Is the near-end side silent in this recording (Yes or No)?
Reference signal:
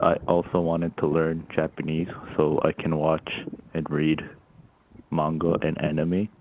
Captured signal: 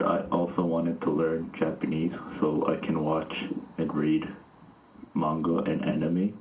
Yes